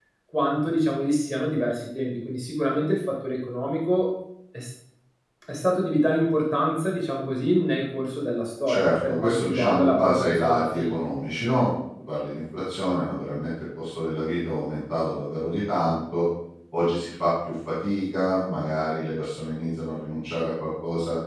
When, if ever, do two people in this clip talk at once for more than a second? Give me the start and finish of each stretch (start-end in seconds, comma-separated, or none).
8.7-11.0